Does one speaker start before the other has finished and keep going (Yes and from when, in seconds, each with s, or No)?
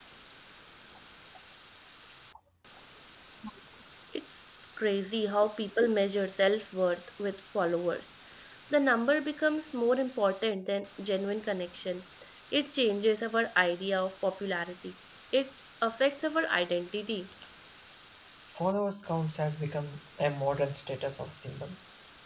No